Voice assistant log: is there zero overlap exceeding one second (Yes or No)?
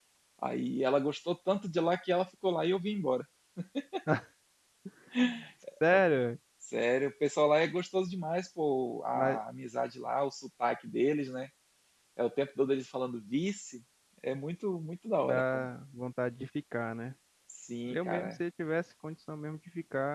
Yes